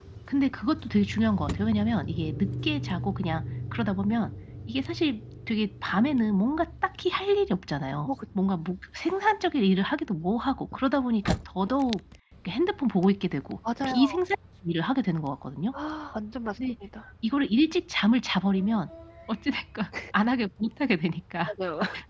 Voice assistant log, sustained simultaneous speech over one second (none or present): none